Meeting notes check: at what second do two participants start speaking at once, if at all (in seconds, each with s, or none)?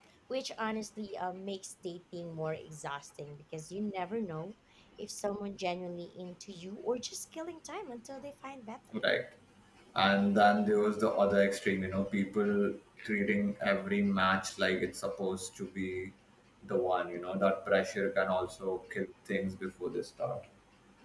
none